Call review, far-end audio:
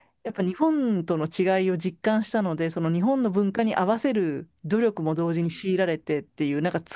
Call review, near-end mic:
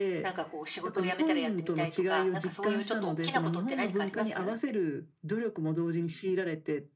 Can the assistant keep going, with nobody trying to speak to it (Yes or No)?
No